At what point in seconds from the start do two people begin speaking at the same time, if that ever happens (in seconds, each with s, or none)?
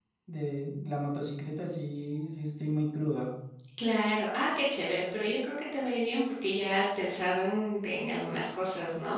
none